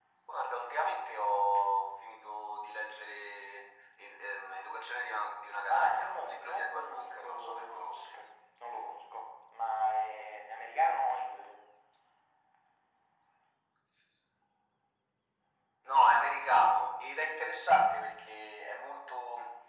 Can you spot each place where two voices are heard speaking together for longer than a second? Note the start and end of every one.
5.7-8.2

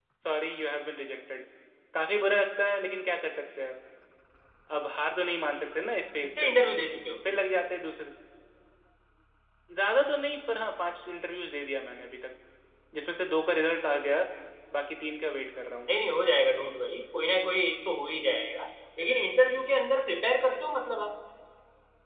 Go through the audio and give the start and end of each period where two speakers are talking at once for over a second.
none

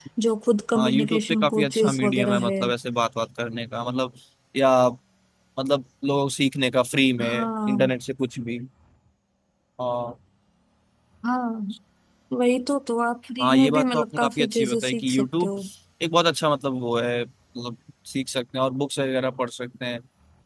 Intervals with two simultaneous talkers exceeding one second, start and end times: 0.8-2.6, 13.4-15.5

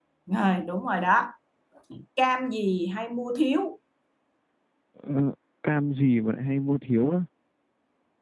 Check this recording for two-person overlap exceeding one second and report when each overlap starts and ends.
none

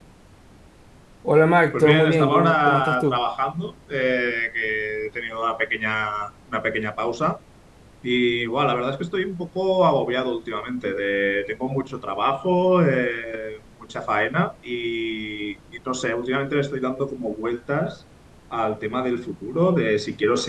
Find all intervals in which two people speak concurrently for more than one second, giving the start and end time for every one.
1.7-3.2

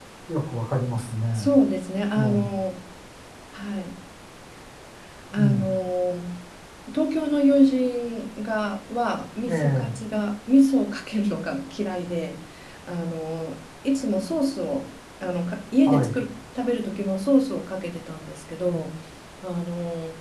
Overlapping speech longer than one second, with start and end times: none

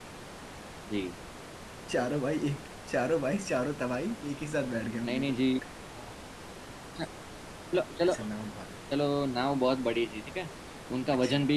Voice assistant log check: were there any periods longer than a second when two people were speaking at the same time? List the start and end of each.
none

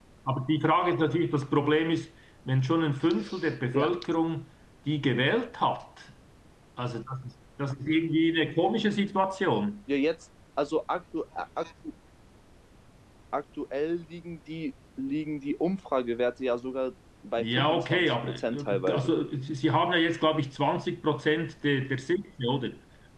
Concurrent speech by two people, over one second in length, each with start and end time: 17.4-19.1

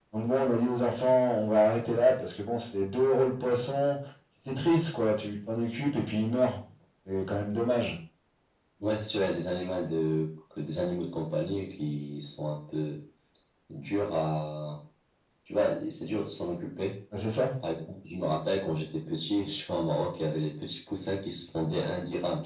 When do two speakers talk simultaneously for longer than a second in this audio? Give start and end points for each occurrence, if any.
none

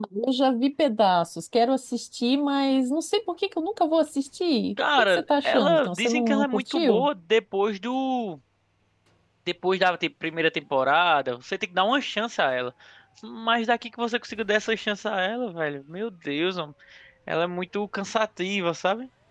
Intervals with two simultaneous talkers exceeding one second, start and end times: 5.0-7.1

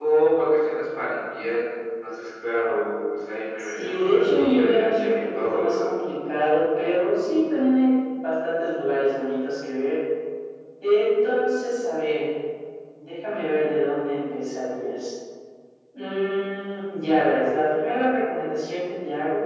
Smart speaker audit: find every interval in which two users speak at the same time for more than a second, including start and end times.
3.6-5.9

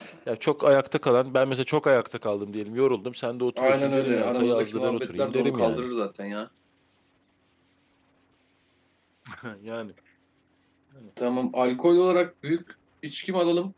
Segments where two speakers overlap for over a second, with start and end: 3.6-5.8

